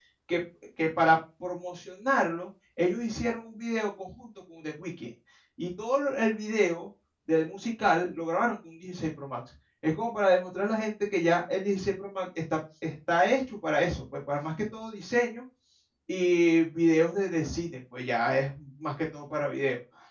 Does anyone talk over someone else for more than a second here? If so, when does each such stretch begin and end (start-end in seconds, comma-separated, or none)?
none